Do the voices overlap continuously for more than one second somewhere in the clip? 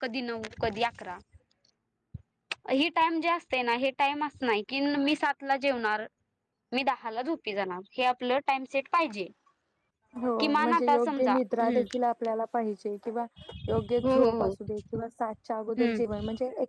Yes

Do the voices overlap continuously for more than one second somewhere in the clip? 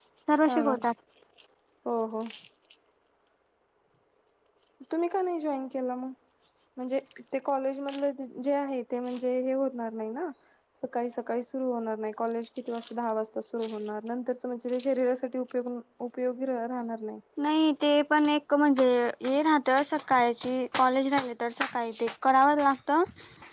No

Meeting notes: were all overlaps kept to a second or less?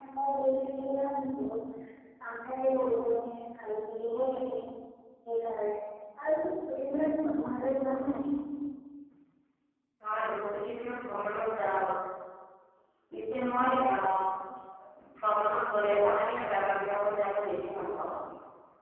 Yes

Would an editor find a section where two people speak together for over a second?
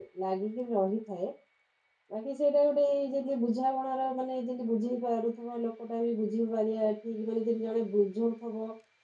No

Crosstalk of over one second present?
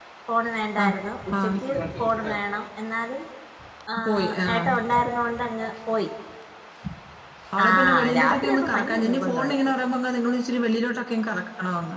Yes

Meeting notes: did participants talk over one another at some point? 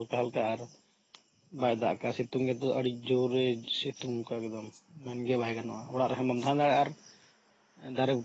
No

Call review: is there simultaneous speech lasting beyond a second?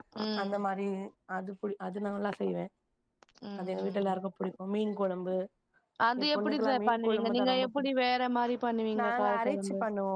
Yes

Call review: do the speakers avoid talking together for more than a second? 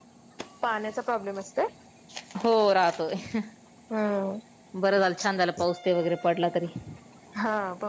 Yes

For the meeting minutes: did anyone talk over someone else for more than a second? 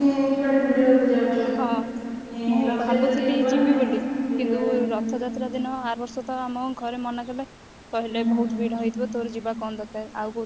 Yes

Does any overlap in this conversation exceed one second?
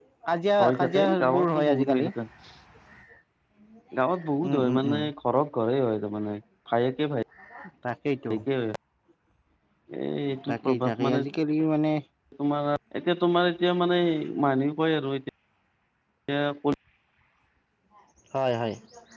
Yes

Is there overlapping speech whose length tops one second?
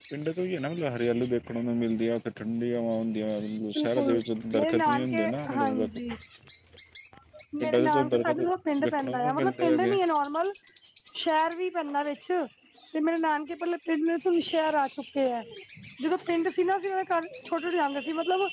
Yes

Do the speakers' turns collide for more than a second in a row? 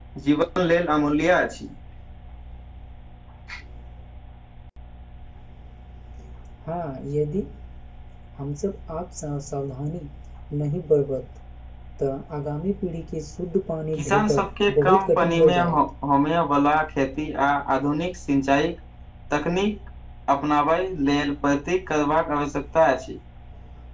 Yes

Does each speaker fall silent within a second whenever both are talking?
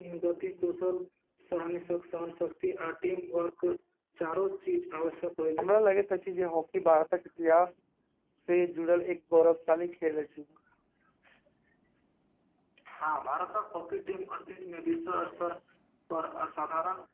Yes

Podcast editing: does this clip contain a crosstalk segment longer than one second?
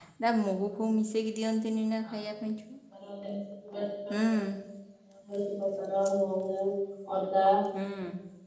No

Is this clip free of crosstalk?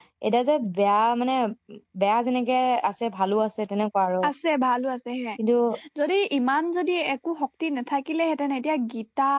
Yes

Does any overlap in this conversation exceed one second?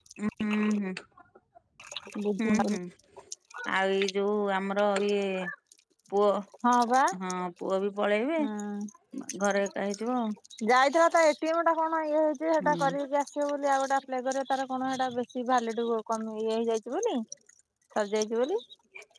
No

